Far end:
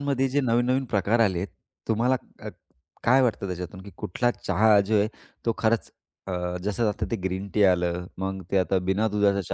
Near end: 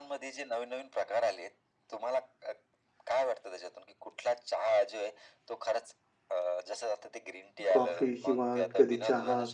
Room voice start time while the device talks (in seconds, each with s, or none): 7.7 s